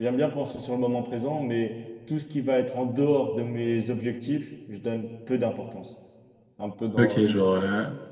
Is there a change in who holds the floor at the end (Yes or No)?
Yes